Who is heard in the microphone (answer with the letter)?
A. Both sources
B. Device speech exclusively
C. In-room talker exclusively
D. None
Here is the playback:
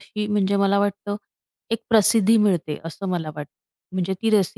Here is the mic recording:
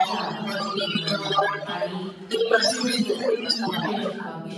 A